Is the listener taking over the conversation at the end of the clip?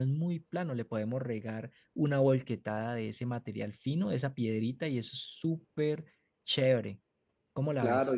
Yes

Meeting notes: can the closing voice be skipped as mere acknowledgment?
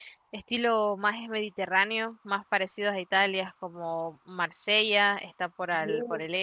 Yes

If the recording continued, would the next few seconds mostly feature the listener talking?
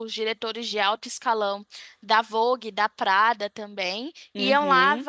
No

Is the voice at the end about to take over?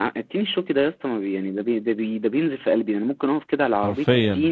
No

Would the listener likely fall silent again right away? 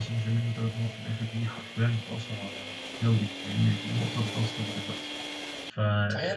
No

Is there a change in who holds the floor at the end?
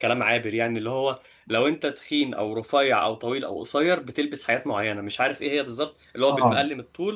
No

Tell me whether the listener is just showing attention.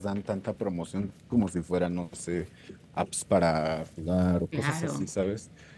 Yes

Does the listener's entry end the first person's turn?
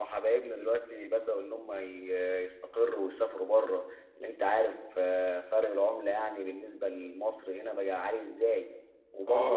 No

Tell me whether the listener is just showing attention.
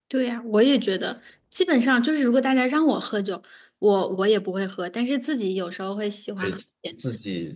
No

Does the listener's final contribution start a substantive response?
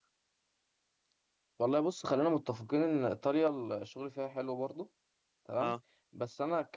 No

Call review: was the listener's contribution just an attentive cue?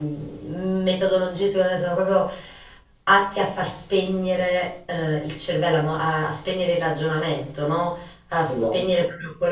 Yes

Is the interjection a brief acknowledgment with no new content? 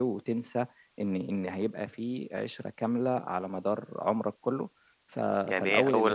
No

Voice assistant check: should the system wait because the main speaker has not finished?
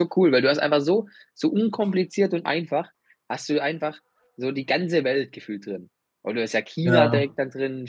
Yes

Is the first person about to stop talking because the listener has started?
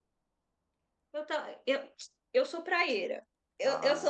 No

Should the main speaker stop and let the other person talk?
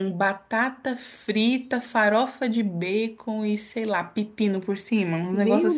Yes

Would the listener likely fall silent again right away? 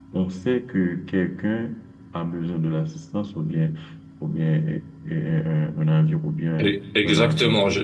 No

